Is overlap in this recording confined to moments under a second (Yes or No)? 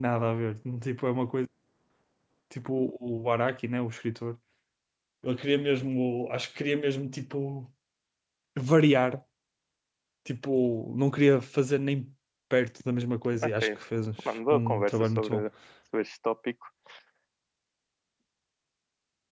No